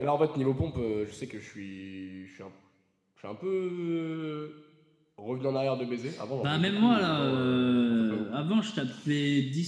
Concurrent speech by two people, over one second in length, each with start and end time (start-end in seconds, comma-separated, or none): 6.4-8.3